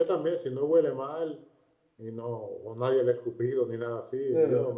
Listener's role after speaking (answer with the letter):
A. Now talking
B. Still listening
B